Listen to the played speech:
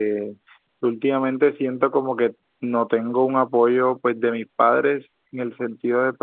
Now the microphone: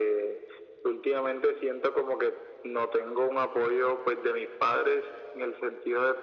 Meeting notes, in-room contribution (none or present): none